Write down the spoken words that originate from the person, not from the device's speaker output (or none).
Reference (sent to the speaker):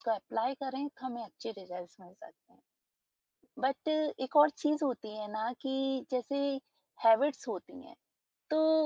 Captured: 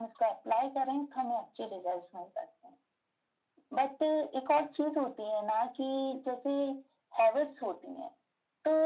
none